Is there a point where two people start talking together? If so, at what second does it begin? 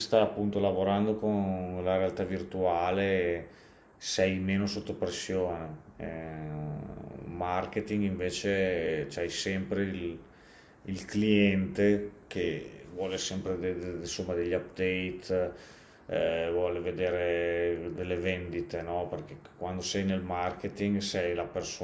none

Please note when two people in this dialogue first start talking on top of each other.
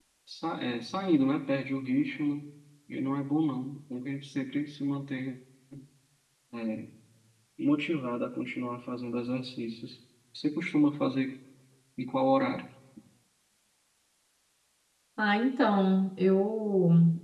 none

